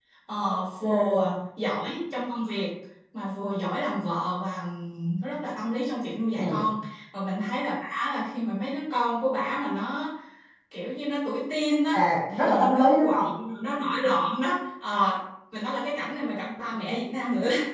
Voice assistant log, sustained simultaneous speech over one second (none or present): present